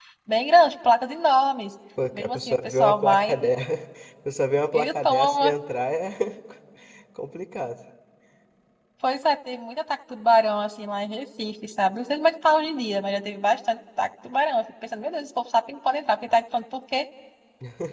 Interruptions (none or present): present